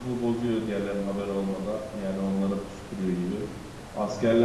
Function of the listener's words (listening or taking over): listening